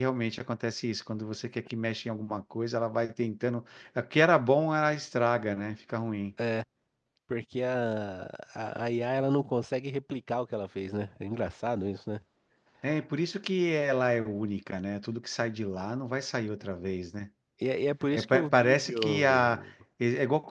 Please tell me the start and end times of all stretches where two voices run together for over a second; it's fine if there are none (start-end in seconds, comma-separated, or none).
18.1-19.6